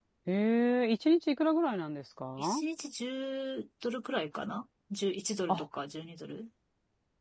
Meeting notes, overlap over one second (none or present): none